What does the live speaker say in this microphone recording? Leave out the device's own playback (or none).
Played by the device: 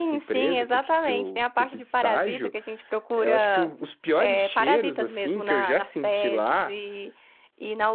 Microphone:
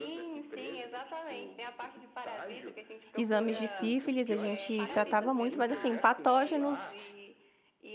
exames de sífilis, a gente tratava muito, mas assim, patógenos